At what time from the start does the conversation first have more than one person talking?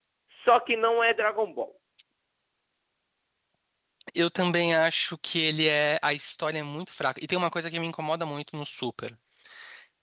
none

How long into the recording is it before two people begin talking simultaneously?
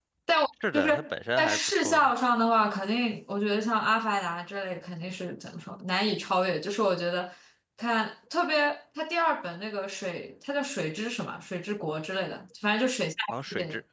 0.7 s

